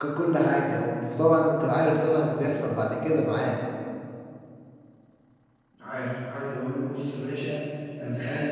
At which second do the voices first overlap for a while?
none

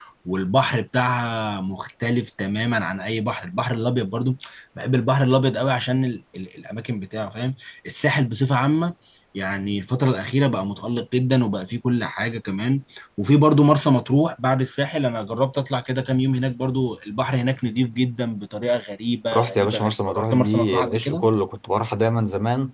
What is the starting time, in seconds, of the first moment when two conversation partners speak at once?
19.3 s

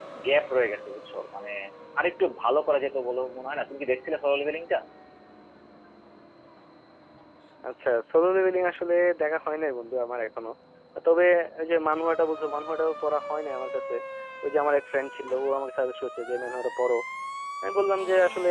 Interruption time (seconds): none

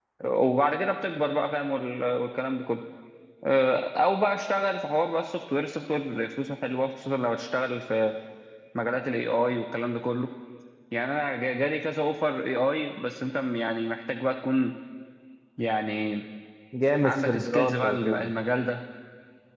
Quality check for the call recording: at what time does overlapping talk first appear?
17.0 s

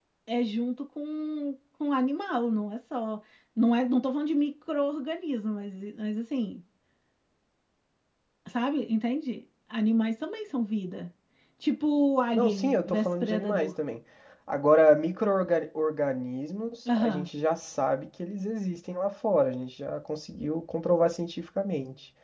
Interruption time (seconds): 12.3 s

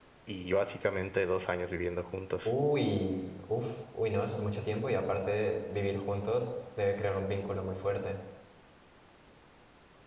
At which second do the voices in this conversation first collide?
none

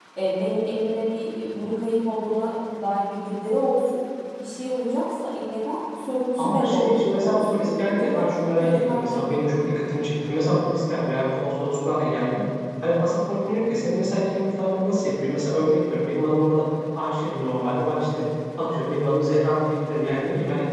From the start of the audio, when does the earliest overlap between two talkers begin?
6.4 s

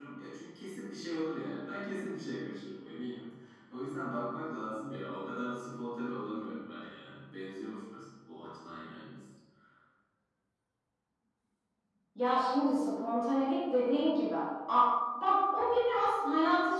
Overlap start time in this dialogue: none

